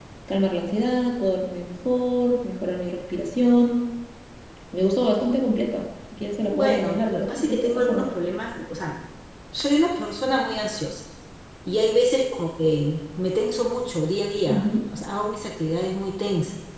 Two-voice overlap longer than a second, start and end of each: 6.5-8.1

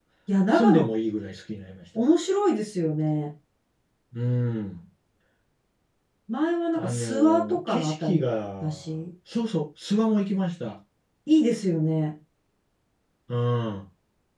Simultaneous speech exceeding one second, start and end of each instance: 6.8-8.2

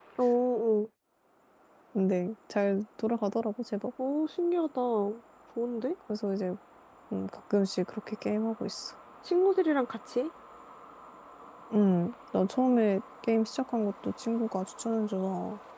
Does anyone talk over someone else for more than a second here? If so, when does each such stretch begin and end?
none

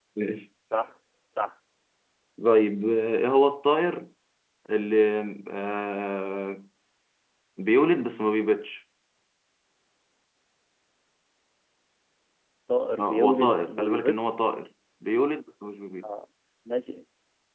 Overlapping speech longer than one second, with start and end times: 13.0-14.3

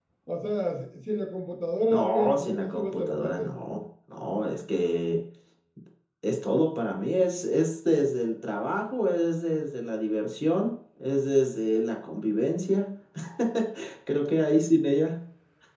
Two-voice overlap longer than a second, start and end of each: 1.9-3.5

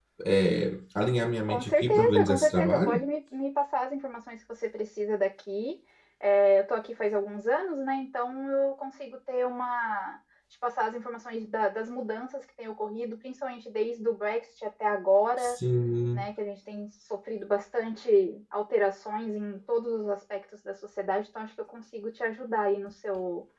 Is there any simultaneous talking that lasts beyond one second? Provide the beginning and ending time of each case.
1.5-3.0

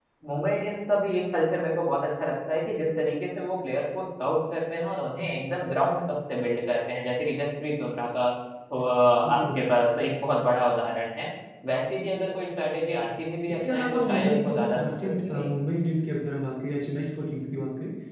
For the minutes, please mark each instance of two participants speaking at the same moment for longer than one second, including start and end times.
13.5-15.5

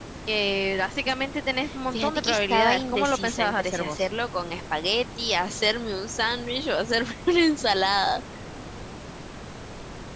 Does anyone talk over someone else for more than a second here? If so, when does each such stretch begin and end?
1.9-4.1

